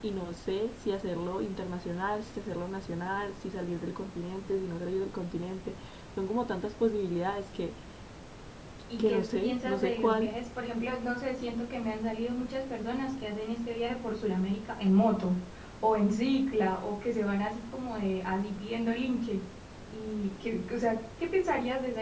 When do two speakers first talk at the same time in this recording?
9.0 s

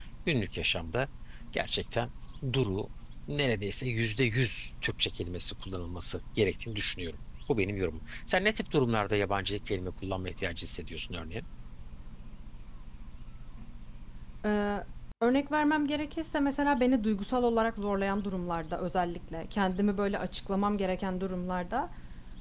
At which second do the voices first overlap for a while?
none

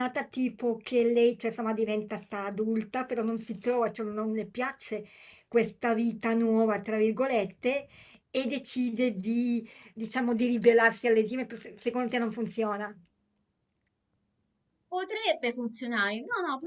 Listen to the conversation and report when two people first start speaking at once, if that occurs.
none

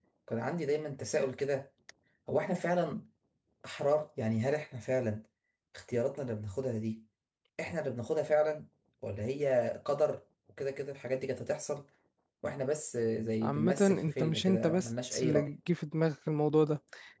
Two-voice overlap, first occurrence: 13.4 s

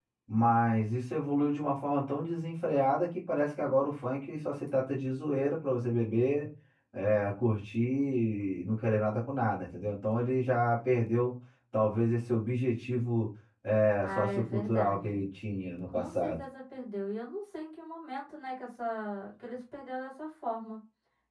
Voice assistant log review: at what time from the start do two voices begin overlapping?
14.0 s

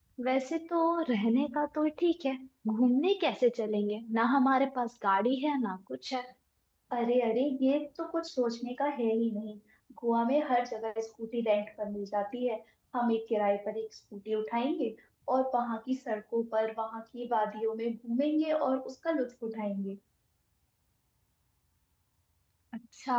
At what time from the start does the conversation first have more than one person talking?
none

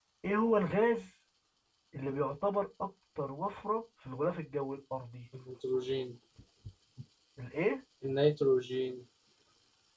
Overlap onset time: none

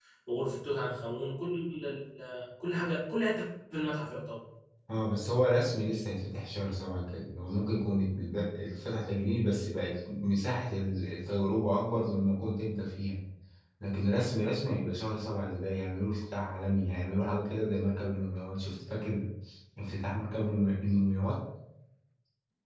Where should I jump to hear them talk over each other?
none

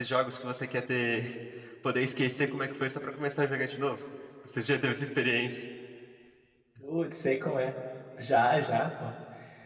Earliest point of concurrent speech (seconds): none

